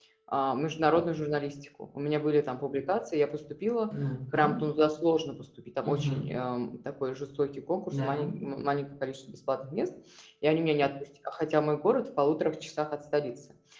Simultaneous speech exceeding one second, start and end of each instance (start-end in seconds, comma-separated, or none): none